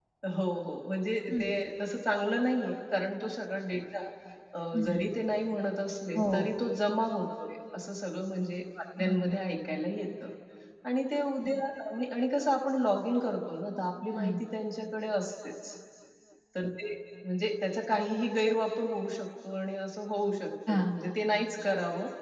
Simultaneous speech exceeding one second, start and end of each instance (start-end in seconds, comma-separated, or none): none